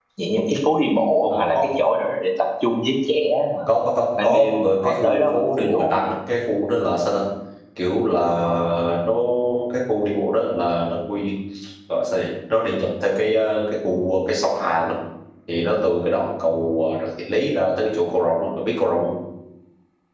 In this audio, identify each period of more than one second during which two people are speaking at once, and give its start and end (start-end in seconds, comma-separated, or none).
4.2-6.1